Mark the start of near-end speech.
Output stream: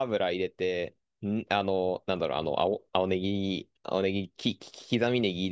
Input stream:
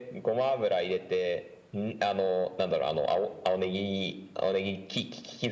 none

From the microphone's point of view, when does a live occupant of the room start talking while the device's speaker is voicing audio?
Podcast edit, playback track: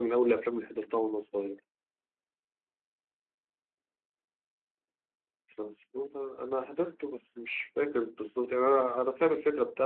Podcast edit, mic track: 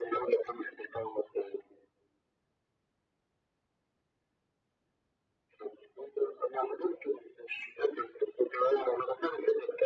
none

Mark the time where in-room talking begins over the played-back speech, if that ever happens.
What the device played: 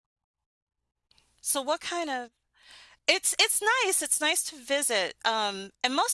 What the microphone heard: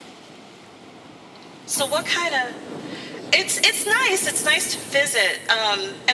none

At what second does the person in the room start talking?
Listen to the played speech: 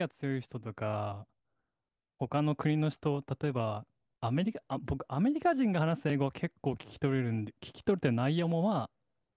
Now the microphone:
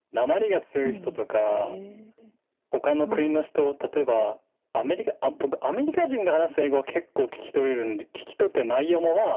0.8 s

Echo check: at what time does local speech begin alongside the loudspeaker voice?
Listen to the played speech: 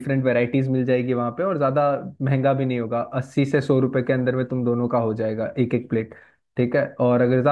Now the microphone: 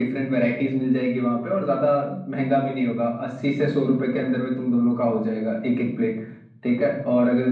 none

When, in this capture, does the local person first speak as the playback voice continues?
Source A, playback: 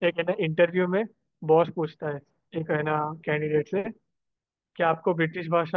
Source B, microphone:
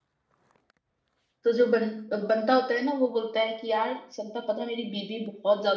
1.4 s

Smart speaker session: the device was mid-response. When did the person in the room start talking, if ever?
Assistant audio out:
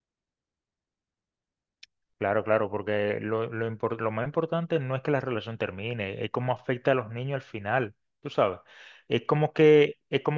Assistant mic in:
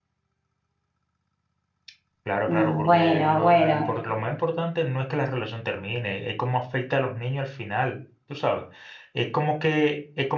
2.5 s

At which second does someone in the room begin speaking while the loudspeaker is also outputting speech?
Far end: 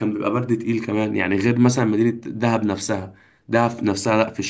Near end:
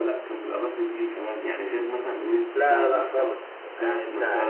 2.5 s

